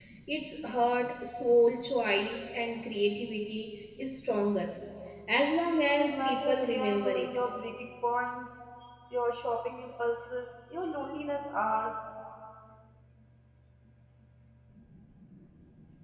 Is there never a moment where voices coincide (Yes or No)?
No